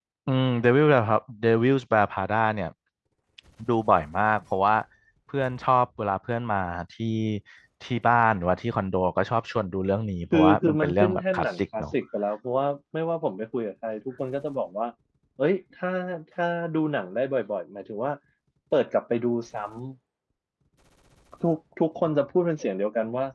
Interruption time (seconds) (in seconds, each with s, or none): 10.3 s